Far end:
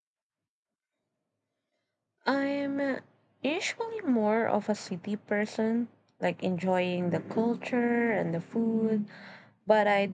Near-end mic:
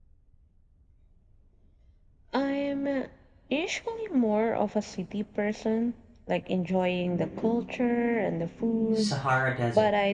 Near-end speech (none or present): present